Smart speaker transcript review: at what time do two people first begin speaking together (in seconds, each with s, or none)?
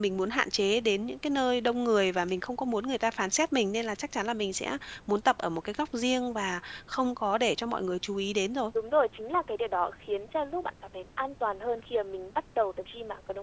none